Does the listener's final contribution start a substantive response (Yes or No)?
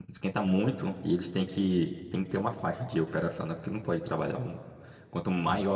No